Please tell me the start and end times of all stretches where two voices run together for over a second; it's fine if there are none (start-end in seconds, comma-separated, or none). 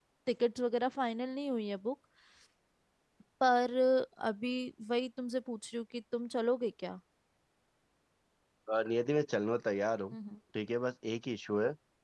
none